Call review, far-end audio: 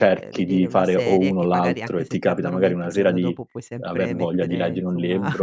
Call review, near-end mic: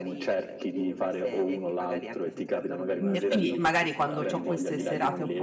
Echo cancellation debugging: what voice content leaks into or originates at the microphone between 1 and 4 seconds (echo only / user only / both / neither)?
both